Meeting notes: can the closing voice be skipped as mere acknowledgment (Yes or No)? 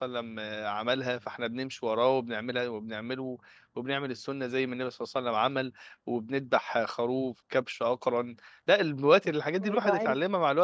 Yes